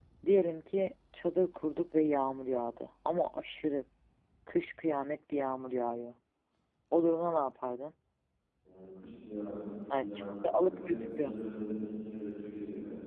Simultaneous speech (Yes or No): Yes